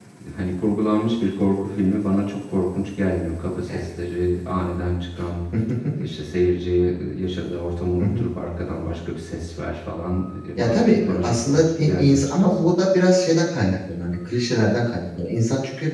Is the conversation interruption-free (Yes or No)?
No